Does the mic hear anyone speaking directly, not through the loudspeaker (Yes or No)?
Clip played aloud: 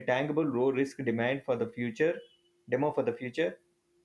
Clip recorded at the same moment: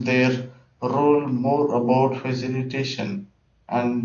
Yes